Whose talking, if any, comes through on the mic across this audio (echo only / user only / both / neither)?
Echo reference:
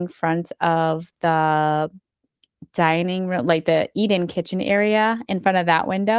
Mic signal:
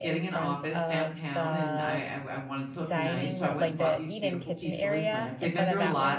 both